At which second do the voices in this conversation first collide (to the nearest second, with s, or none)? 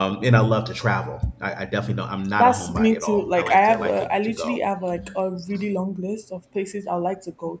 2 s